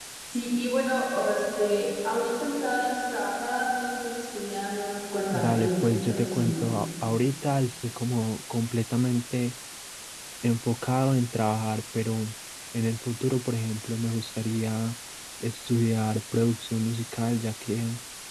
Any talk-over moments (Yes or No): Yes